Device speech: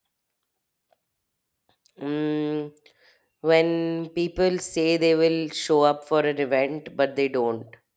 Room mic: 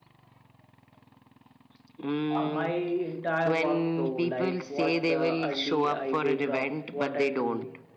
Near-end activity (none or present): present